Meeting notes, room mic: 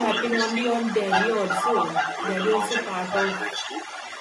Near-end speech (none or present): present